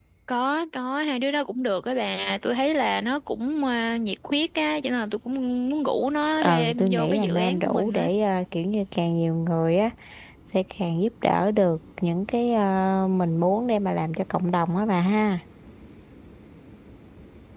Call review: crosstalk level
present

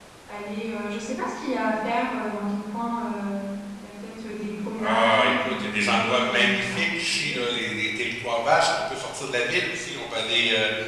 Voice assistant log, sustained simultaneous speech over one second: present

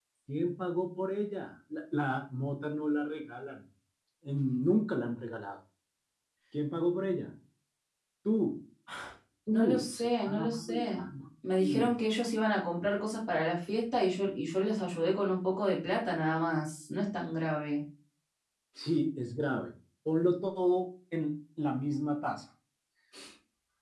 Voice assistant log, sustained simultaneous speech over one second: present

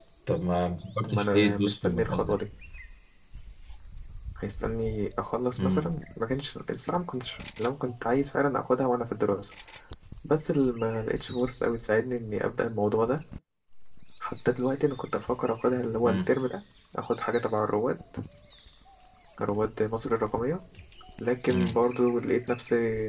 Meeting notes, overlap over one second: present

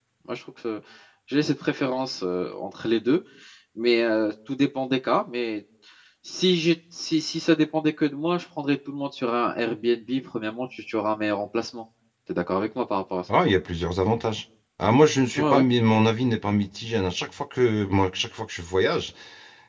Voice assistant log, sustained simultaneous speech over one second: none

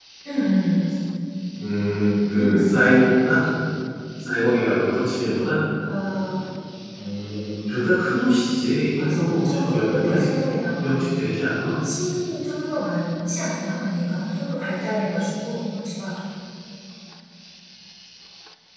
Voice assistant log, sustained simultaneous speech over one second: present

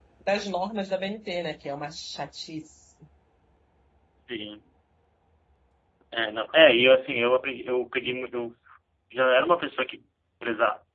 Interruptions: none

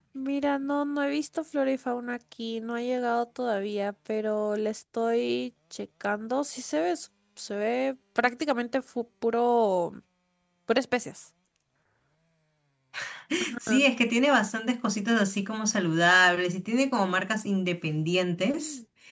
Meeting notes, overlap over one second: none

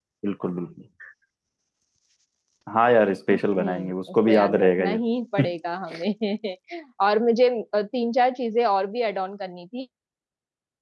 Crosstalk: present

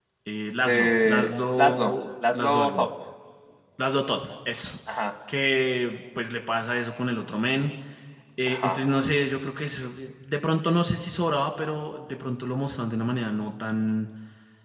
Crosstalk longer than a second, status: present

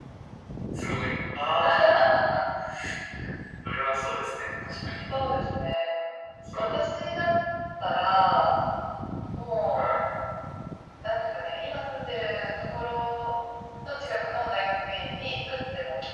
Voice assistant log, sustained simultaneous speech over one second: none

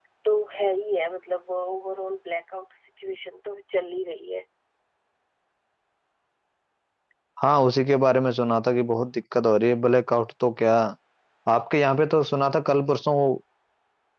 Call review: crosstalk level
none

